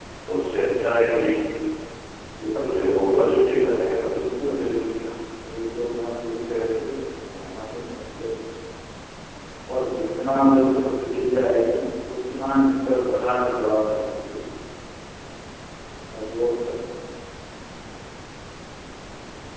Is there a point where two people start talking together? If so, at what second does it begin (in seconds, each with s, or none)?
2.5 s